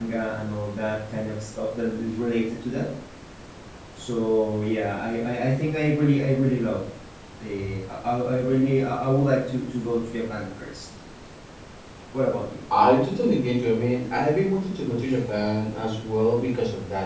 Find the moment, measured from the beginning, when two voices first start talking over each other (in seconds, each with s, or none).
none